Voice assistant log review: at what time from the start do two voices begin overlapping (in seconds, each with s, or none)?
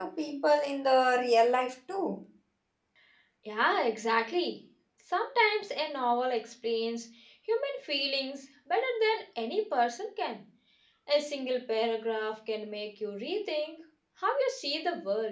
none